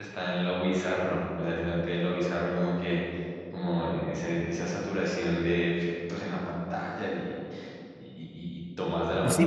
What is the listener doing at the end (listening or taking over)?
taking over